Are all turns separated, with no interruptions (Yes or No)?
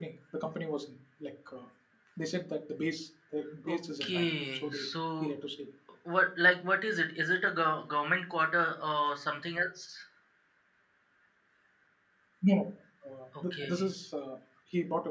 No